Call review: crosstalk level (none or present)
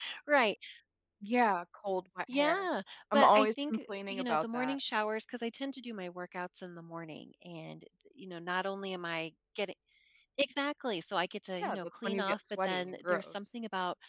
present